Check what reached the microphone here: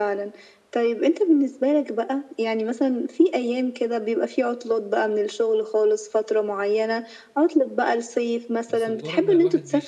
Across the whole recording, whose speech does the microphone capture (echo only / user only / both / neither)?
both